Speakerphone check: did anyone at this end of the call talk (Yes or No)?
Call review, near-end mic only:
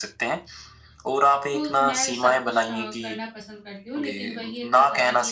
Yes